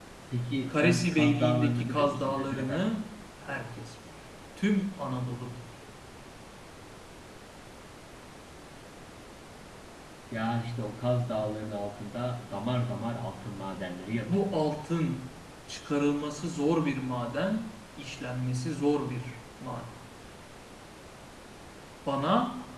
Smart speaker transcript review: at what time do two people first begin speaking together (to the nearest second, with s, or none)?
1 s